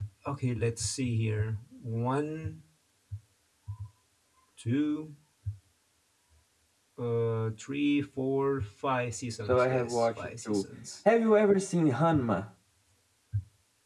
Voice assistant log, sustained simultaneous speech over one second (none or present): present